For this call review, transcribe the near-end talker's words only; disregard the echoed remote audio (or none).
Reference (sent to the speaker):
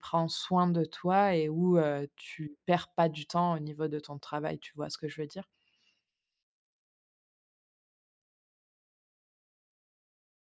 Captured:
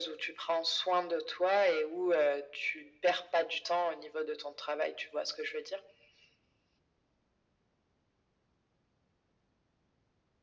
none